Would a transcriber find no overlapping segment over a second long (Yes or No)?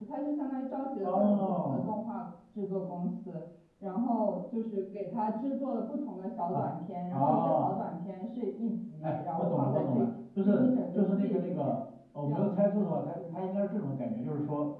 No